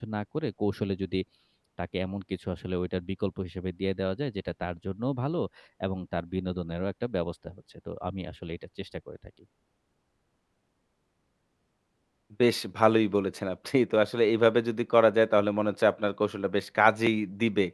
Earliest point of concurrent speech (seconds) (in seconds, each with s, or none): none